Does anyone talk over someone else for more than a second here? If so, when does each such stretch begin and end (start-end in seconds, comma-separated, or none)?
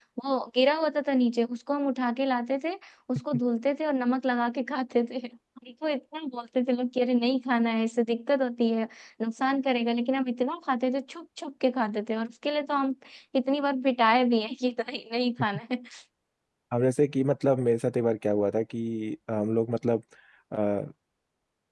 none